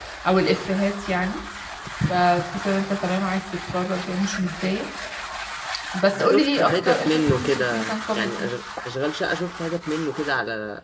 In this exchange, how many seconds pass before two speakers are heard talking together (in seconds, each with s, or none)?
6.2 s